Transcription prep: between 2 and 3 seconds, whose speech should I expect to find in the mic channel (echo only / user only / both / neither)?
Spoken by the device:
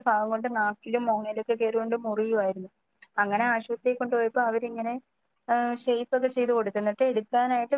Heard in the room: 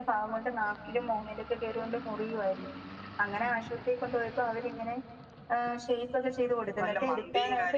echo only